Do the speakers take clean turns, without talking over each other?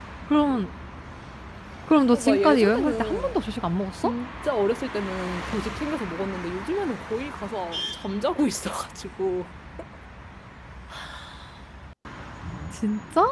No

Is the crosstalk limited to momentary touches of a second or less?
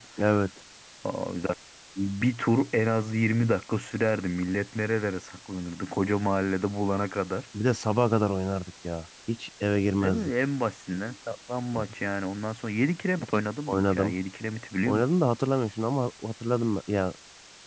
Yes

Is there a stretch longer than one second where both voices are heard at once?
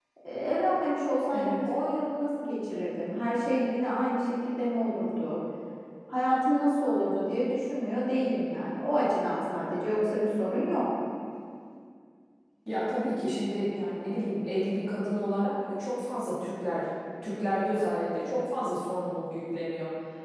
No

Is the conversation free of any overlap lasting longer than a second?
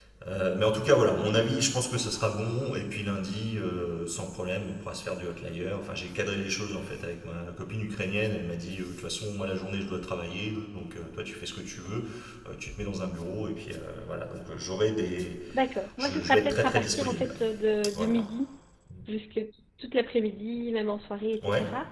No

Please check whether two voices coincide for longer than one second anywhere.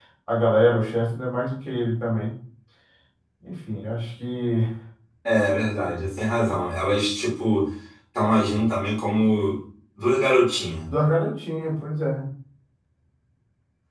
No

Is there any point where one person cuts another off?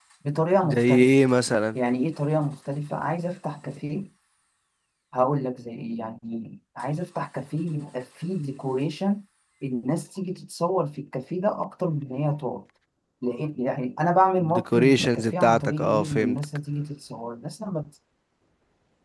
Yes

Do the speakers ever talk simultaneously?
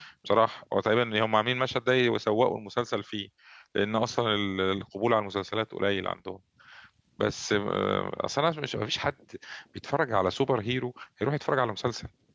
No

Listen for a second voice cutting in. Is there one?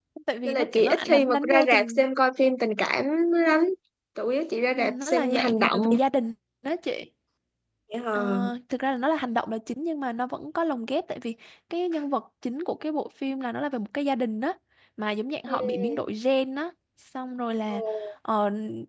Yes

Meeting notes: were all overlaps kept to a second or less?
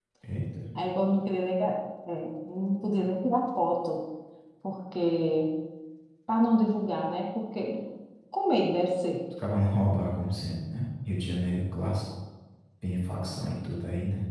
Yes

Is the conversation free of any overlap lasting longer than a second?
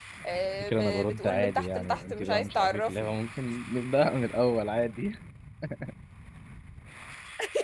No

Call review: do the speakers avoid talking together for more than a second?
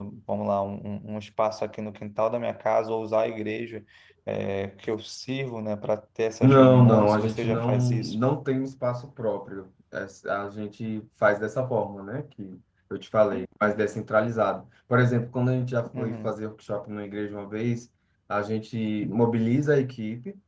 No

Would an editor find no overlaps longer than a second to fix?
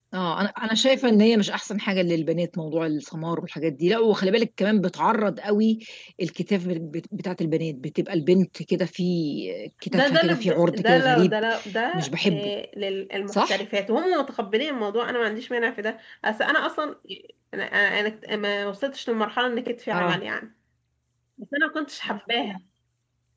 No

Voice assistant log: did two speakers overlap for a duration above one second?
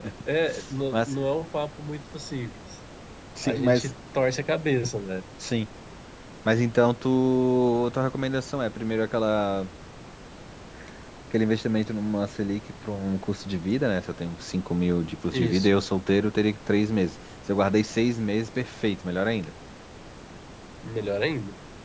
No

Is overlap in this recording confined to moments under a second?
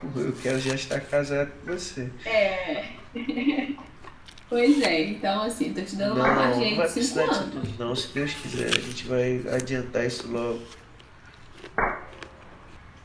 No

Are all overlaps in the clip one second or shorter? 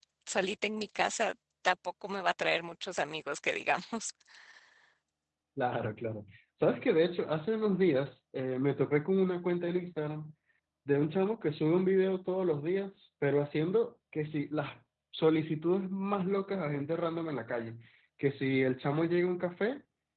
Yes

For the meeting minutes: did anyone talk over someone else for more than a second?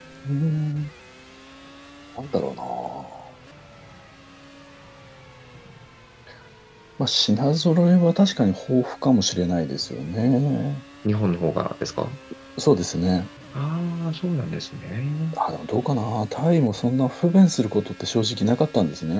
No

